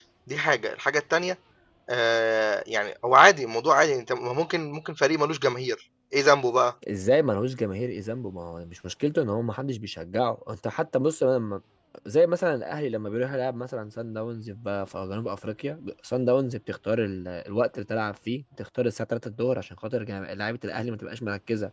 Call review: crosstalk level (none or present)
none